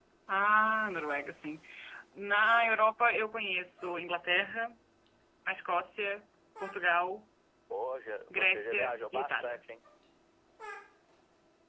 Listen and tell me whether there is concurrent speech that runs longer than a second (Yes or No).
Yes